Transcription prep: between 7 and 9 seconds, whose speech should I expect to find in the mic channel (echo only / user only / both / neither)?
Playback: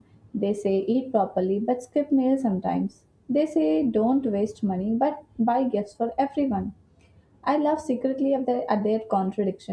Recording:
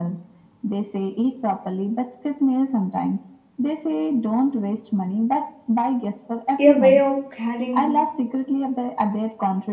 both